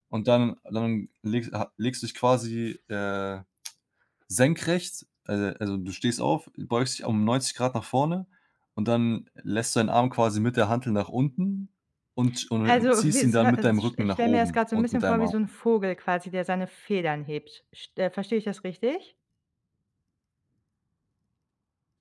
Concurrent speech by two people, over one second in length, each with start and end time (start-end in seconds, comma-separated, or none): 12.6-15.3